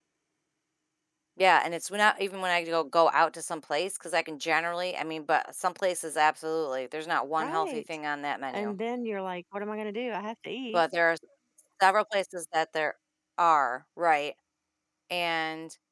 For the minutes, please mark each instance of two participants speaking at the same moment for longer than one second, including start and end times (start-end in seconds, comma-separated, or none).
none